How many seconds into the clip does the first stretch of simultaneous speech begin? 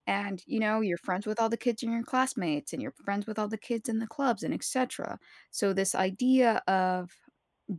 none

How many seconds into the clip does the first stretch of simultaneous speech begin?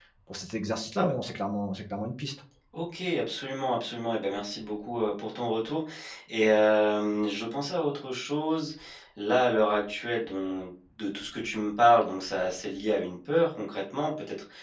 none

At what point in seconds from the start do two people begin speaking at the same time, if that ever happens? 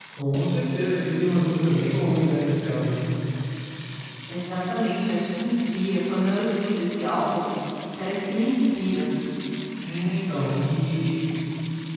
none

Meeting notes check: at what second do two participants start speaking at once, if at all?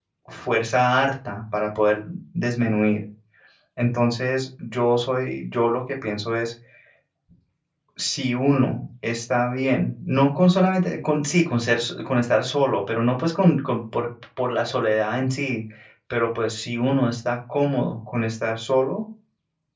none

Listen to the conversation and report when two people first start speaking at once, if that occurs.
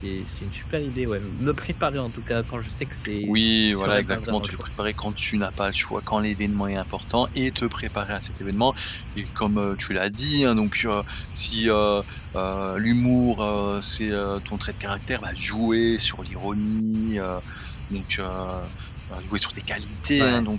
3 s

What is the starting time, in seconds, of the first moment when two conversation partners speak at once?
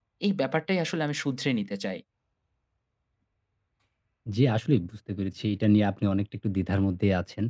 none

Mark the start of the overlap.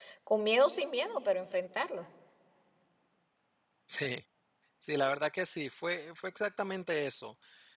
none

